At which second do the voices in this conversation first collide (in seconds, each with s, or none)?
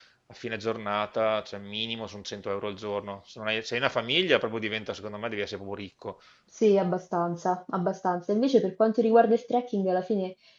none